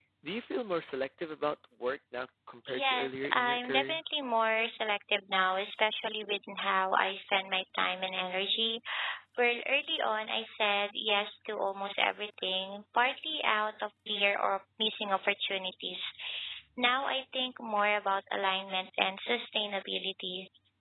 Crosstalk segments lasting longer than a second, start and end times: 2.7-4.0

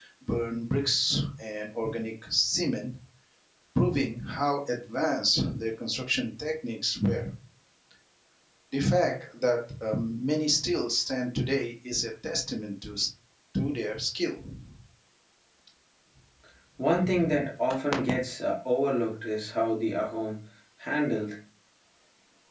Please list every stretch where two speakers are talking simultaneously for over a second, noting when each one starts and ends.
none

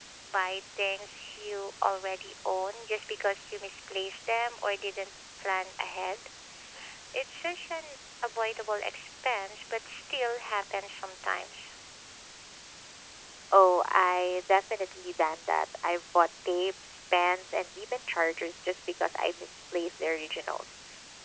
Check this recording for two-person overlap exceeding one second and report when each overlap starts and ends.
none

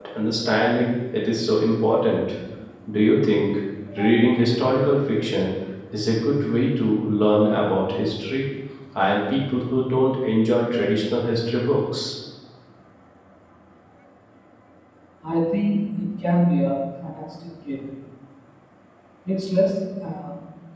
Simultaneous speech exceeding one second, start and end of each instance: none

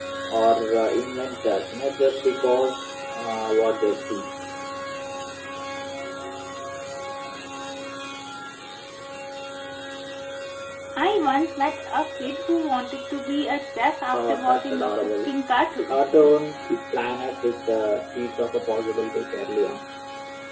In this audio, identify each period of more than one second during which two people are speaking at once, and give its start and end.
14.1-15.3

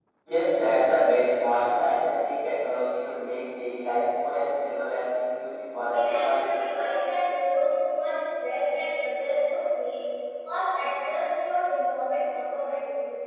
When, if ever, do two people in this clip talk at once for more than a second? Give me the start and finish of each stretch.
none

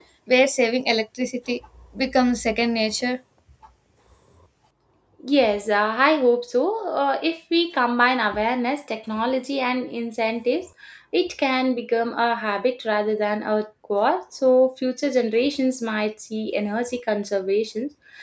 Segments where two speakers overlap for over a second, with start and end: none

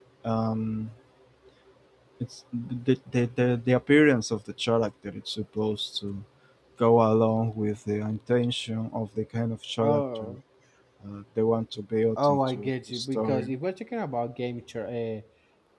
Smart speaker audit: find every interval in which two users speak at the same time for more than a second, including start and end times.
12.2-13.5

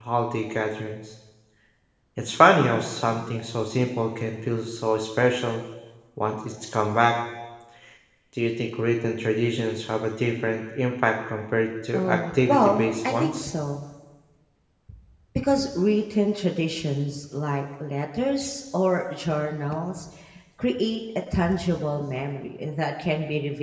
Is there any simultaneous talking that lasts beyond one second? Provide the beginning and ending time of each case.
11.9-13.4

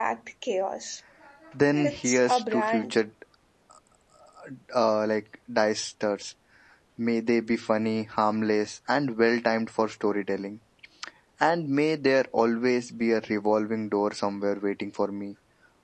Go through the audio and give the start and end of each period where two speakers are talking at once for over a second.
1.7-3.0

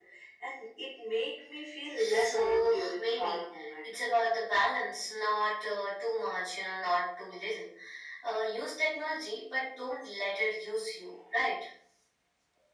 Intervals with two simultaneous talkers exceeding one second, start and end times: 2.0-3.9

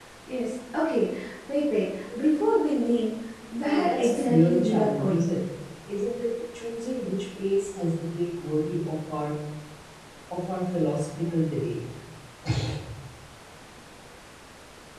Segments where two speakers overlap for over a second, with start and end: 3.6-5.3

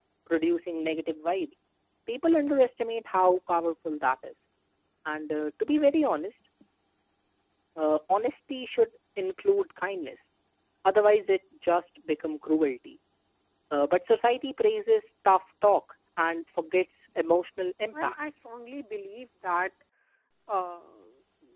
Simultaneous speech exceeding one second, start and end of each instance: none

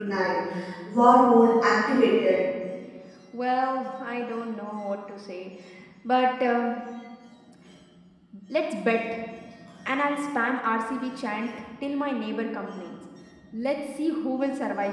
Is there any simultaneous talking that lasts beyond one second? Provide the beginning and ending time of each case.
none

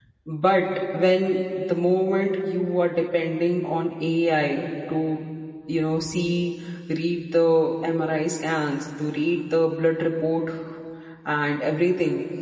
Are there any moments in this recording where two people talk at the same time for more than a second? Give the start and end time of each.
none

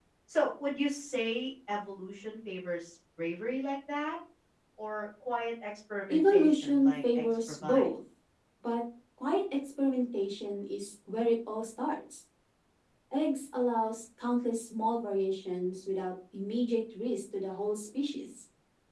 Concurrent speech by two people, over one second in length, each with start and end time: 6.1-7.9

